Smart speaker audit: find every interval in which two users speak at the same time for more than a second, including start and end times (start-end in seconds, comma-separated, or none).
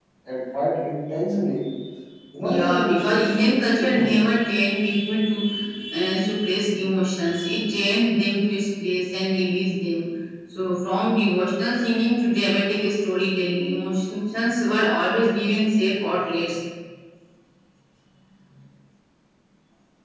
2.4-4.2